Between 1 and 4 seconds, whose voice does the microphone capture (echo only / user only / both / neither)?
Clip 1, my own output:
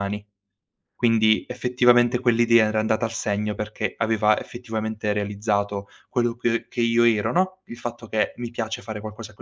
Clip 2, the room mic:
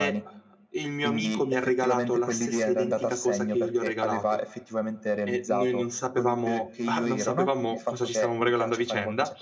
both